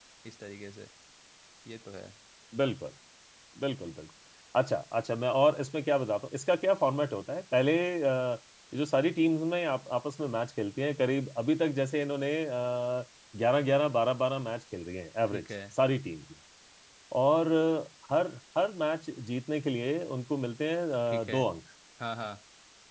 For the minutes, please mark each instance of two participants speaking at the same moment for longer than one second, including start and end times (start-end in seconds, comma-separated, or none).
none